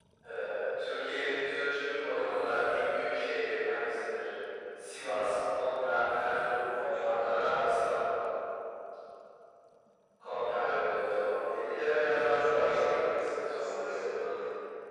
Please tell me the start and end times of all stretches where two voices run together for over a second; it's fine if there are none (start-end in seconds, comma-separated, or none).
12.1-14.1